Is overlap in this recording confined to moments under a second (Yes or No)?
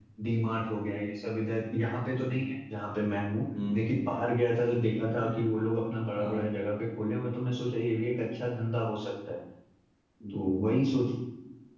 Yes